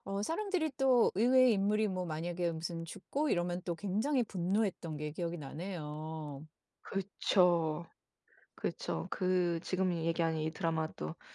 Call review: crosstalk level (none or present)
none